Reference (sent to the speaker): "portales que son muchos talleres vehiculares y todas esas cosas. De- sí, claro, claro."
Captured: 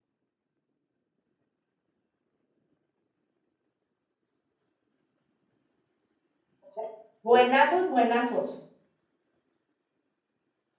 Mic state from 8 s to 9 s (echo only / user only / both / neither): user only